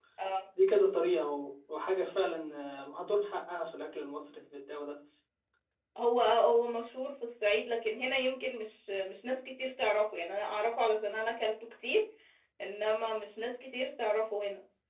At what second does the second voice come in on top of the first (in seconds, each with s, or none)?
none